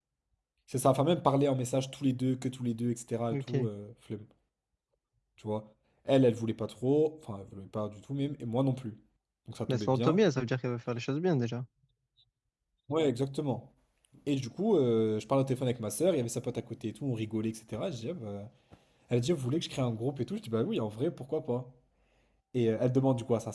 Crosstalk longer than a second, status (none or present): none